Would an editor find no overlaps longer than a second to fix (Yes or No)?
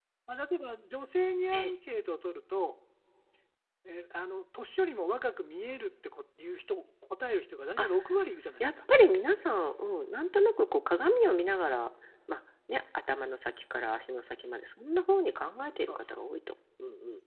Yes